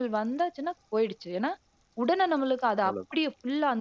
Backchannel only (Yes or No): Yes